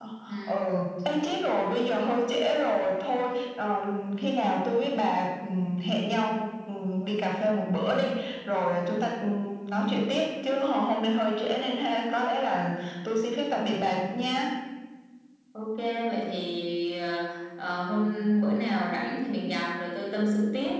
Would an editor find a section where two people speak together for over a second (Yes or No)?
No